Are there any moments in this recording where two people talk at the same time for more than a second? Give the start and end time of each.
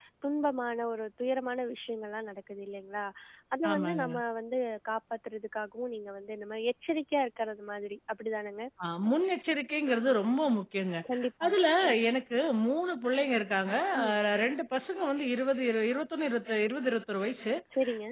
none

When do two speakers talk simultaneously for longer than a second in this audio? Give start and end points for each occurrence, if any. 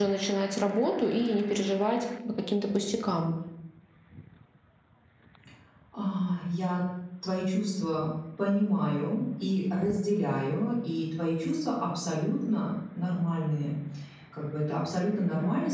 none

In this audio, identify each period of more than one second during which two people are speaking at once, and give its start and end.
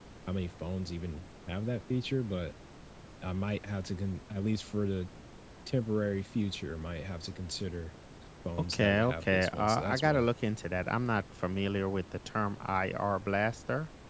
8.7-10.3

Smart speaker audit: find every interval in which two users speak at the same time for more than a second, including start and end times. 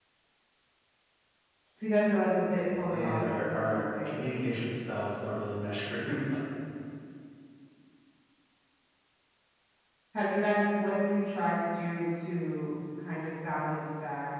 2.9-4.2

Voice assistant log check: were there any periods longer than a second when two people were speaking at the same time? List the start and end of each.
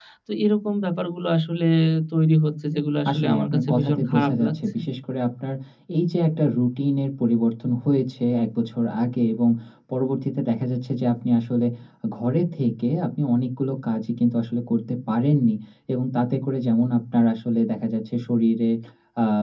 3.1-4.8

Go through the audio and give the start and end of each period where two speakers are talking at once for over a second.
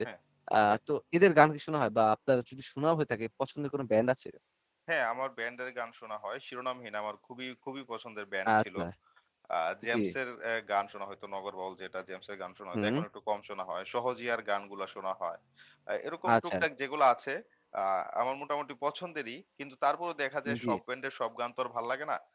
none

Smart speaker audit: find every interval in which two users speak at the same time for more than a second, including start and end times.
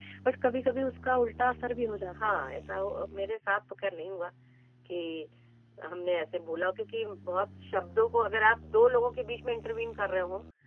none

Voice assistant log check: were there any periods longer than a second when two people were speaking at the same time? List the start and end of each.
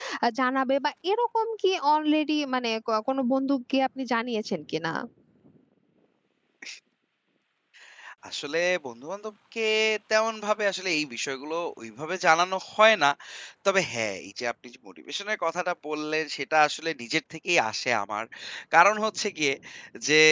none

